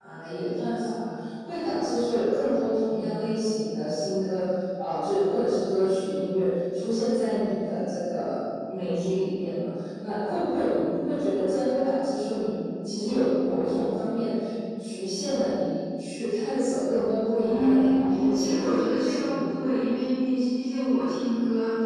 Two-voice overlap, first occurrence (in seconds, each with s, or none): 17.4 s